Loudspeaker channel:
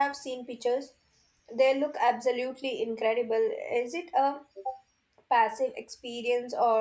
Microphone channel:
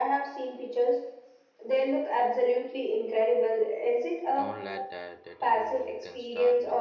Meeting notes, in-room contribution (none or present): present